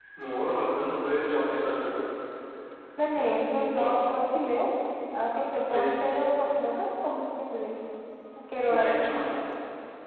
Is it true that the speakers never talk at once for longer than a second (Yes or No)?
Yes